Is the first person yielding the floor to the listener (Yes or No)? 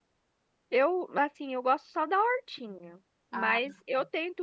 No